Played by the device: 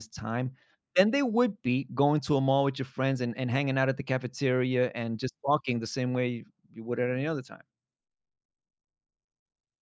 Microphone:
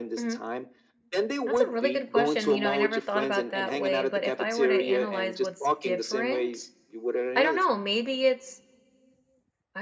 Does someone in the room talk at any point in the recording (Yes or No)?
Yes